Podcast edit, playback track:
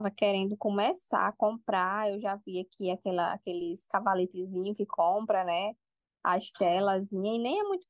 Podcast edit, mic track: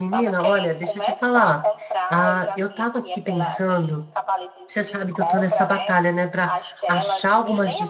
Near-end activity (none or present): present